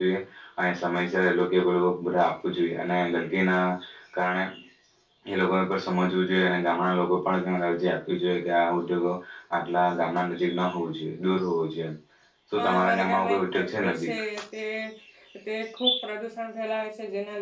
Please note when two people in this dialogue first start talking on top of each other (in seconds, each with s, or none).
12.6 s